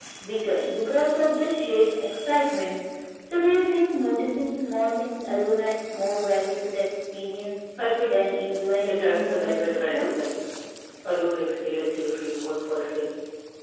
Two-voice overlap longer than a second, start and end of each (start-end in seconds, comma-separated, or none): 8.9-10.3